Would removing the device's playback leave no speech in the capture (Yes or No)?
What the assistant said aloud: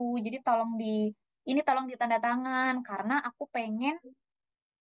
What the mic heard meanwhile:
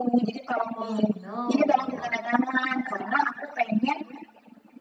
No